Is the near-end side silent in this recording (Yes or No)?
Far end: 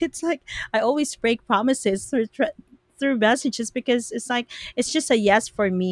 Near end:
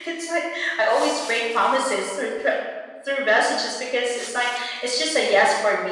Yes